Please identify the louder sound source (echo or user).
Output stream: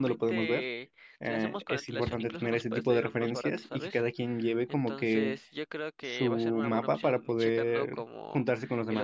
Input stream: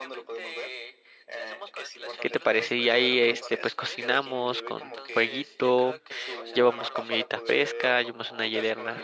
user